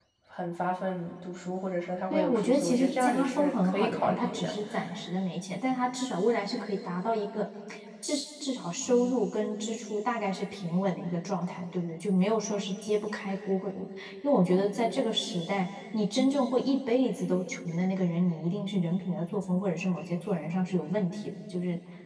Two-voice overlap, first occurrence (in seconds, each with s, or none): 2.1 s